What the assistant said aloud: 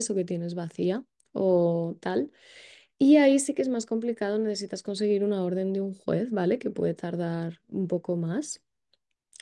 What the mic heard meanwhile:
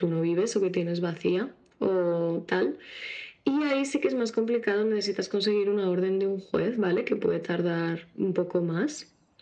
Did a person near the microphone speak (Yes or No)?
No